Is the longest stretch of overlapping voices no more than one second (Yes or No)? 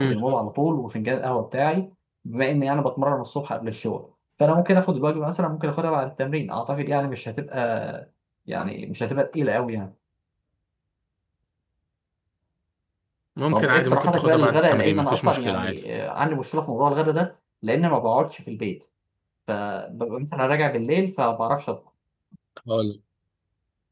No